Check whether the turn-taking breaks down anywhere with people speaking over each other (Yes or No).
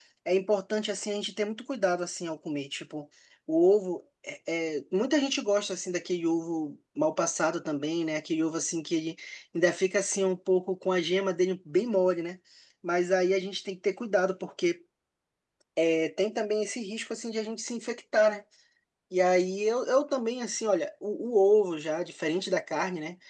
No